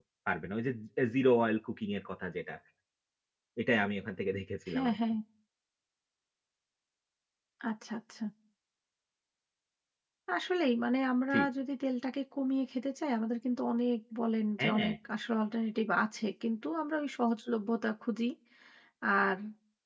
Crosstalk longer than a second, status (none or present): none